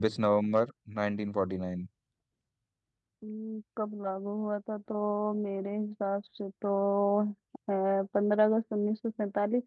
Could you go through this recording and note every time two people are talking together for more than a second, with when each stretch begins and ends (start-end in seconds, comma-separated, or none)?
none